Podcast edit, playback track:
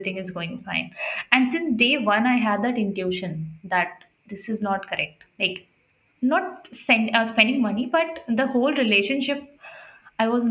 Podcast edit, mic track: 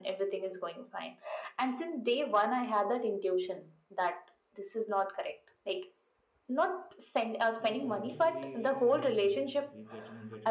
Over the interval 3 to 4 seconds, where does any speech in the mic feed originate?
echo only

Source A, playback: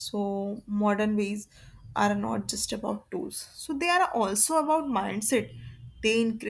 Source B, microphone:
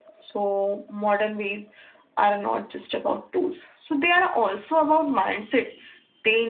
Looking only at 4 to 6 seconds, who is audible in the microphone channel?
echo only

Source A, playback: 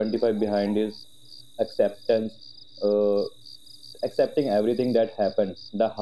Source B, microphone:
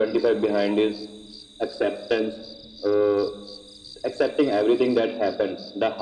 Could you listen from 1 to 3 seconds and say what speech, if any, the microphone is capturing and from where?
echo only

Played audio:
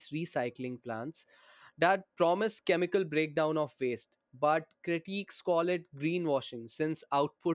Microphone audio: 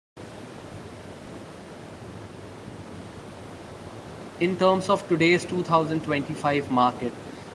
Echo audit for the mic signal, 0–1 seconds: neither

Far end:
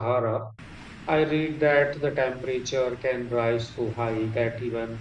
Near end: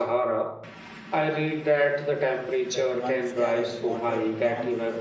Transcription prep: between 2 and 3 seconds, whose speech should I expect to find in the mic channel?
both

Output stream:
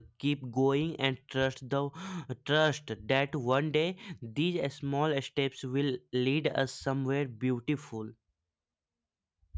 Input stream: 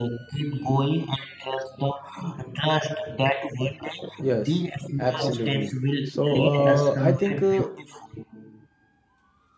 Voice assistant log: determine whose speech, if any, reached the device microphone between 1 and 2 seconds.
echo only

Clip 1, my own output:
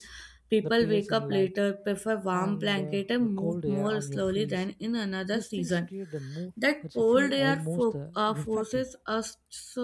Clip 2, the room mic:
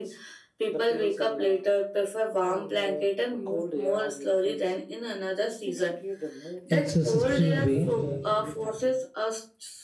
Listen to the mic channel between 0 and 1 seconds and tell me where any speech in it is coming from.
echo only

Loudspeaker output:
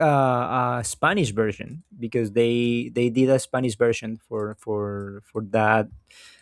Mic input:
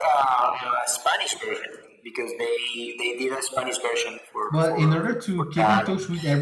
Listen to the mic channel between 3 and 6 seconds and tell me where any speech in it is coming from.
both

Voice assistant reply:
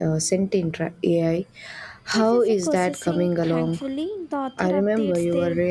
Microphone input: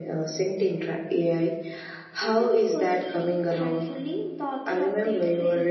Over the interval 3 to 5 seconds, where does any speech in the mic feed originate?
echo only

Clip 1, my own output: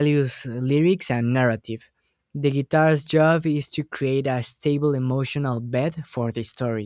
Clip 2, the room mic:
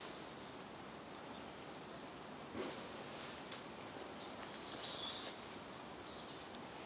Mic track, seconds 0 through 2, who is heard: neither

